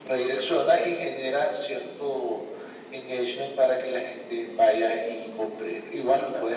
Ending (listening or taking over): listening